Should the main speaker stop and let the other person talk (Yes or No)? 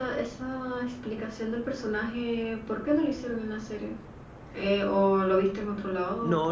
Yes